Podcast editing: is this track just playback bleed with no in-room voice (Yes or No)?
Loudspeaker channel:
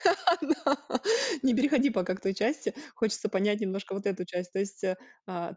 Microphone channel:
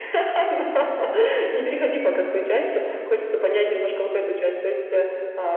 Yes